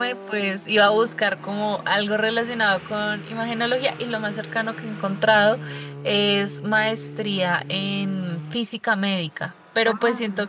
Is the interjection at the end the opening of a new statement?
No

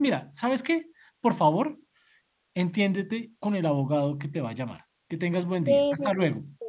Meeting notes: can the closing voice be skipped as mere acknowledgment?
No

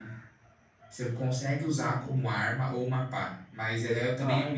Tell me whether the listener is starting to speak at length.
No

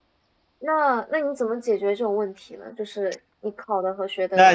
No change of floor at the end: No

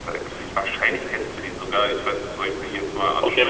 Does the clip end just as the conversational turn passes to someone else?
Yes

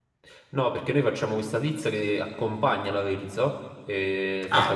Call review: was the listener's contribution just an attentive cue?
Yes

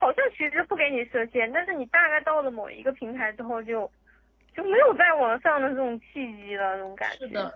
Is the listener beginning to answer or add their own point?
Yes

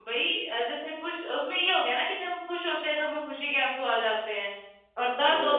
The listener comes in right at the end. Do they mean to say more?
No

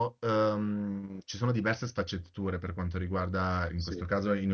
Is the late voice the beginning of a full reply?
No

